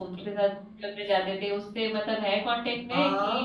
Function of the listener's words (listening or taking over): taking over